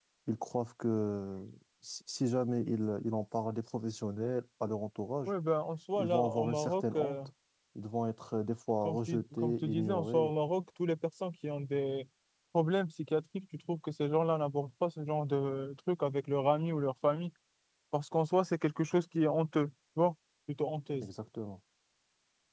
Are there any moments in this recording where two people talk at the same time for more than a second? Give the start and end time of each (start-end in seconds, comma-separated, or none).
6.0-7.2, 8.8-10.3